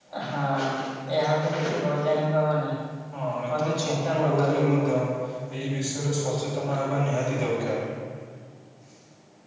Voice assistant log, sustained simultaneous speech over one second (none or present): present